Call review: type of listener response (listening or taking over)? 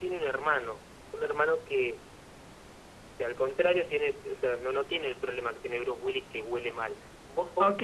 taking over